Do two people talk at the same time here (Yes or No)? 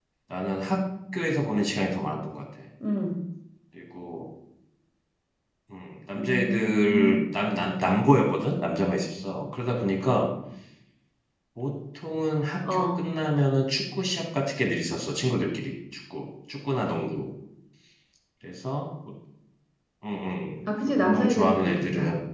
Yes